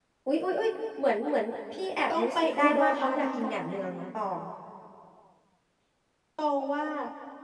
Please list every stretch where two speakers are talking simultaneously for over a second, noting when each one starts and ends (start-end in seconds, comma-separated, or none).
2.1-3.5